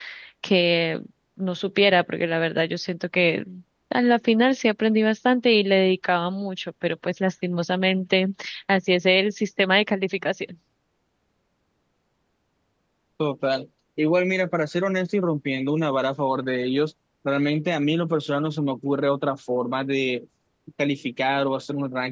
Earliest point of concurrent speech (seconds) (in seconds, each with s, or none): none